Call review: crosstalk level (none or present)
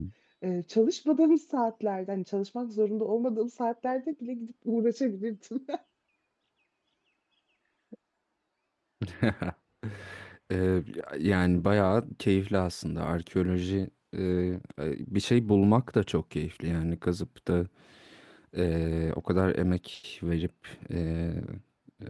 none